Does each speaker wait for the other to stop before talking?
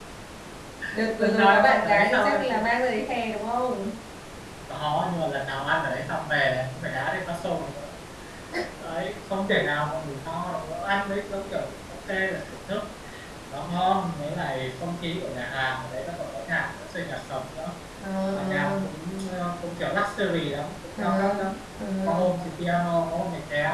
No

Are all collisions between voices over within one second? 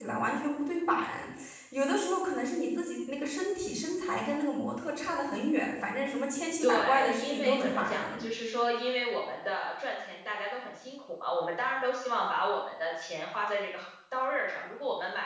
No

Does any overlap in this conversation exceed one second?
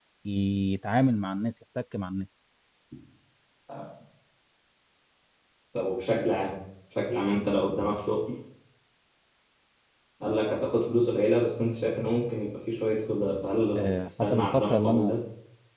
Yes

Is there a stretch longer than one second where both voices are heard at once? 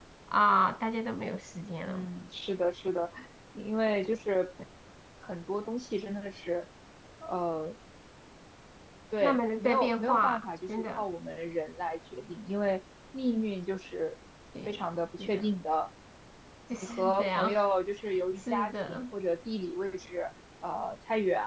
Yes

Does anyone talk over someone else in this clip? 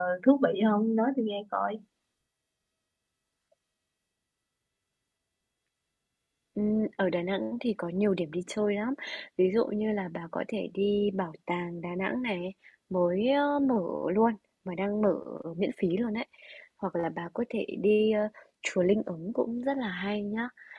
No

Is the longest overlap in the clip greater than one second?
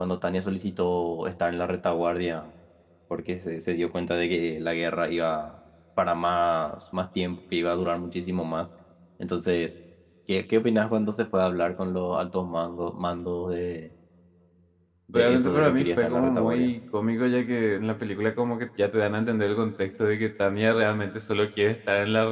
Yes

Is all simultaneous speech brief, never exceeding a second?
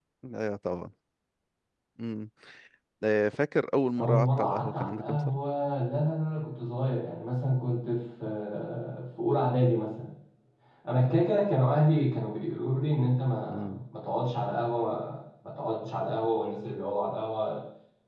No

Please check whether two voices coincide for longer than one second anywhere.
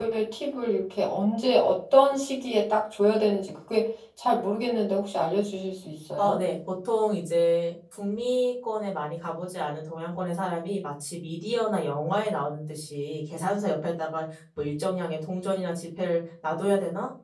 No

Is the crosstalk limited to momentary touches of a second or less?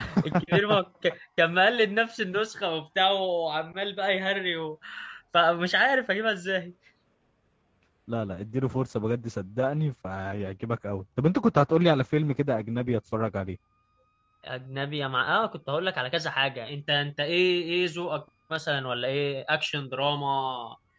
Yes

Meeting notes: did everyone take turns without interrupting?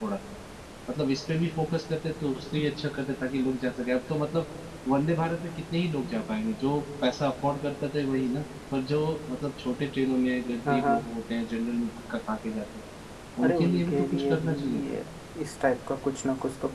No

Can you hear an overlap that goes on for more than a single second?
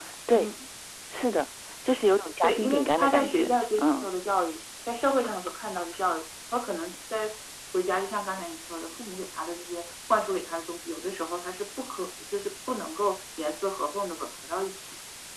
Yes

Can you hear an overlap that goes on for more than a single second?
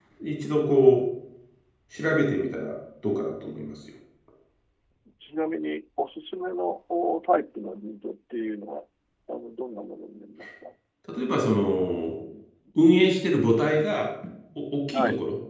No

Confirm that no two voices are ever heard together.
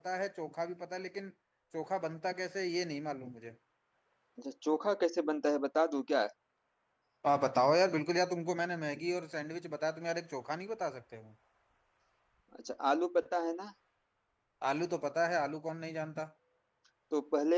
Yes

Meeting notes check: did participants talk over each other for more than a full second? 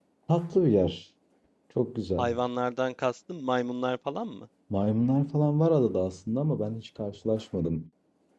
No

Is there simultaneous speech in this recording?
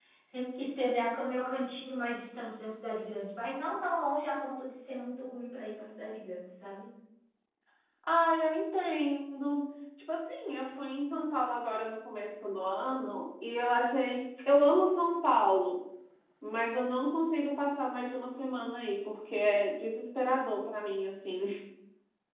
No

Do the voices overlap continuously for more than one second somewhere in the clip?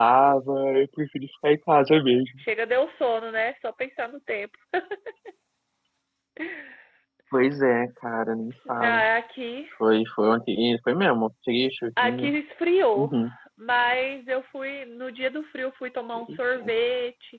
No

